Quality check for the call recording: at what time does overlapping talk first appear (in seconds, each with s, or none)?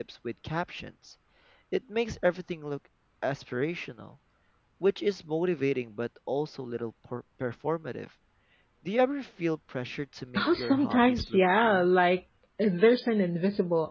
10.3 s